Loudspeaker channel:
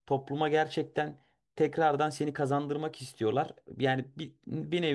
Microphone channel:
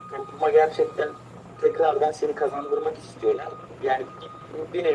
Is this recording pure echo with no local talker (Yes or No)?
Yes